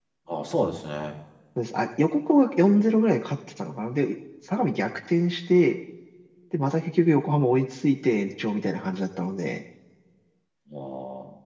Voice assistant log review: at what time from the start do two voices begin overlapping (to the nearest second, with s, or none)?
none